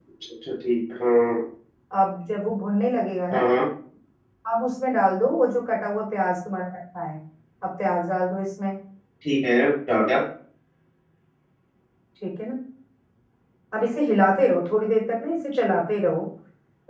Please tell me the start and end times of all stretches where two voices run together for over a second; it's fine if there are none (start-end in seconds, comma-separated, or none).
none